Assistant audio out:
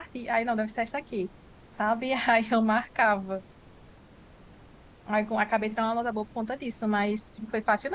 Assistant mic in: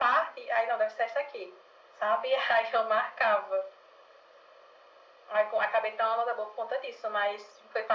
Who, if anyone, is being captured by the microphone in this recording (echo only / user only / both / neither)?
echo only